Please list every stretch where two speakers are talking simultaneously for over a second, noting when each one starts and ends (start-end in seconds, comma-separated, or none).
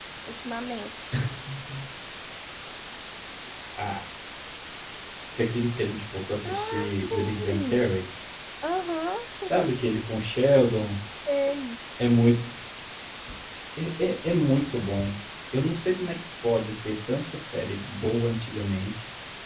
6.5-7.9